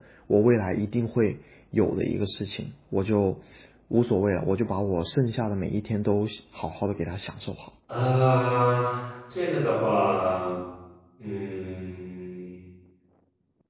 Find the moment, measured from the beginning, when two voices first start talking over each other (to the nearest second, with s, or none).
none